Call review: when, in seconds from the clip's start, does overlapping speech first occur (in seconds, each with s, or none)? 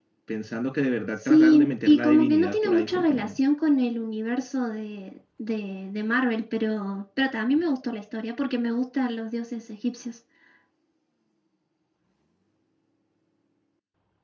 1.2 s